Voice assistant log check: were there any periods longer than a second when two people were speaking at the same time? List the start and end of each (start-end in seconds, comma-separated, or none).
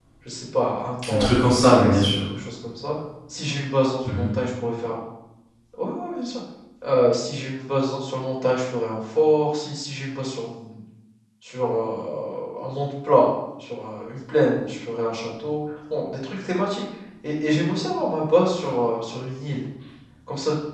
1.1-2.3